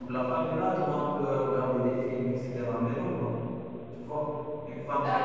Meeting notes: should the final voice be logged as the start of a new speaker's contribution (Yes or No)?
Yes